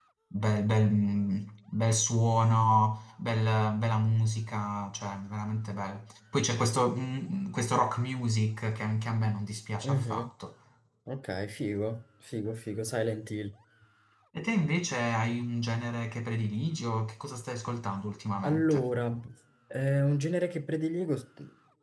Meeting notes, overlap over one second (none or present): none